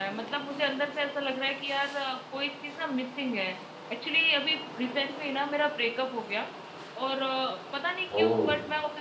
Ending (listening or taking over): listening